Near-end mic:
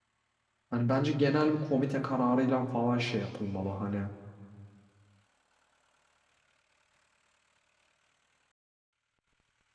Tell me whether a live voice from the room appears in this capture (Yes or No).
Yes